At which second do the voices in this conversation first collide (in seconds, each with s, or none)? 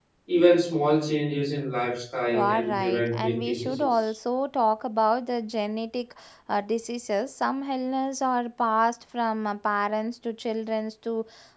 2.3 s